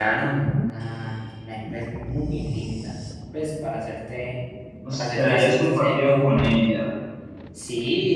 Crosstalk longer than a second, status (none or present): present